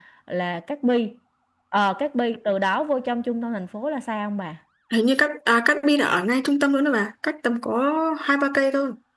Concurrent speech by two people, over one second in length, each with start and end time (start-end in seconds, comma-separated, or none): none